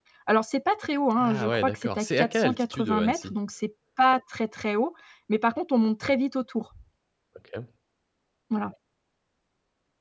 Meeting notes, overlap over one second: present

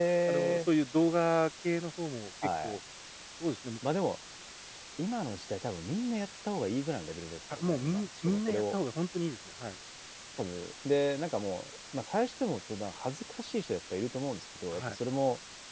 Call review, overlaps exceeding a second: present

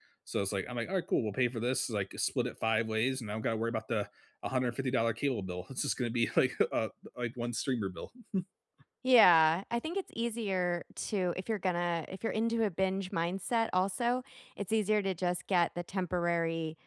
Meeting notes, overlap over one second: none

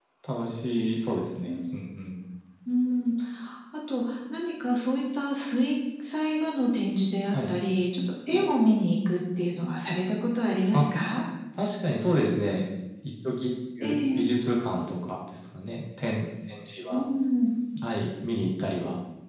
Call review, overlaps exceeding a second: none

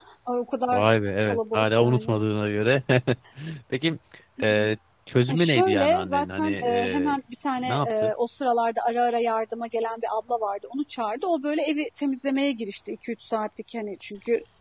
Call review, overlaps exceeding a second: present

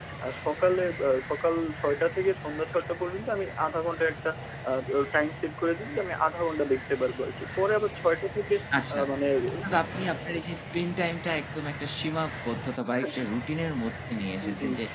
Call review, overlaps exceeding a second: none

